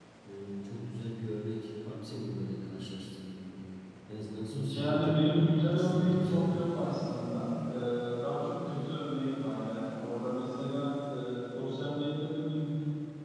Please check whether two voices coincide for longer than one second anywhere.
Yes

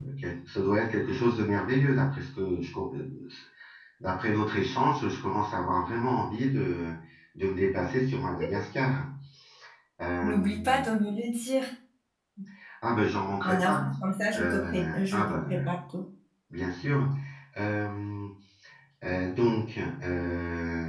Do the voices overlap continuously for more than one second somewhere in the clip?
Yes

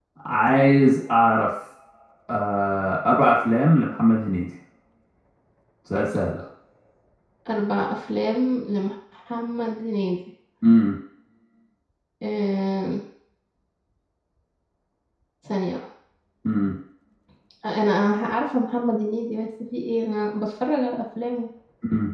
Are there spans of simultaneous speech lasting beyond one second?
No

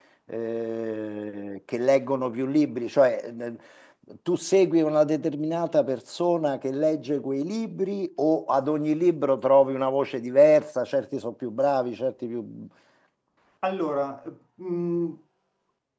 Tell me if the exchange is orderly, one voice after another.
Yes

